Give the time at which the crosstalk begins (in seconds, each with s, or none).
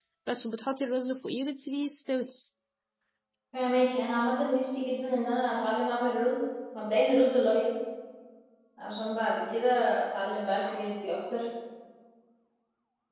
none